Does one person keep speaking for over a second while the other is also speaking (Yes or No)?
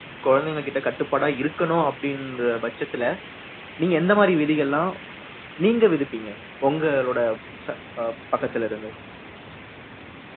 No